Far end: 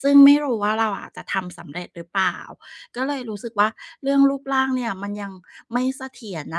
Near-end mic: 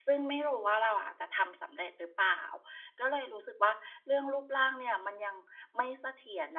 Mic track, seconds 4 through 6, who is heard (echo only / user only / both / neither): echo only